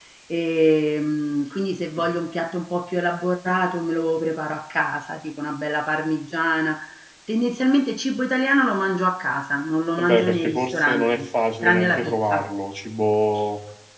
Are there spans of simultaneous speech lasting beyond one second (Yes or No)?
Yes